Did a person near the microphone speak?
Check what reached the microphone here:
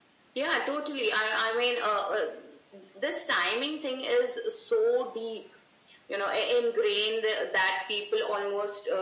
No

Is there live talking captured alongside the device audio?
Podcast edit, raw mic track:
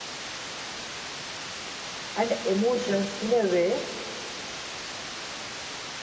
Yes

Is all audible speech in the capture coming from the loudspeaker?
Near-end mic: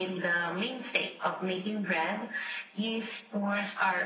Yes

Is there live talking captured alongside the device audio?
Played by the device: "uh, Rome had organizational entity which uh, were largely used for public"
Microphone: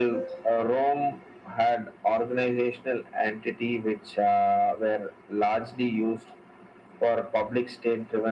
No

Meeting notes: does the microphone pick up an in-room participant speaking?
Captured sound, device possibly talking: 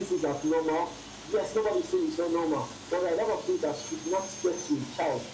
No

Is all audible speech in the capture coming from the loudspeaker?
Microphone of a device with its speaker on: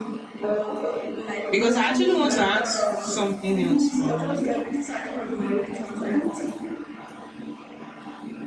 No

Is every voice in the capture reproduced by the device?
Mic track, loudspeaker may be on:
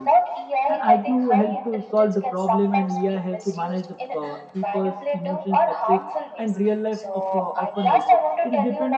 No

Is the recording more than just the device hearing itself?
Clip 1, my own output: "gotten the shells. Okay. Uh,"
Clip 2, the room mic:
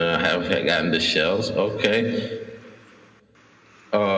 No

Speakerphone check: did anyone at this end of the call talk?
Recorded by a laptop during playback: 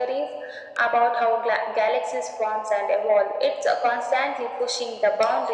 No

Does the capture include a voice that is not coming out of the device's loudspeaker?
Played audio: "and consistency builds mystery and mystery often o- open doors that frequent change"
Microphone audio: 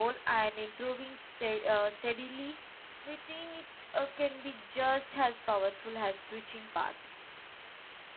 Yes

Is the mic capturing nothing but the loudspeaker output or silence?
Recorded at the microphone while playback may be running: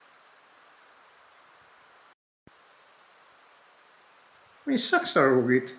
No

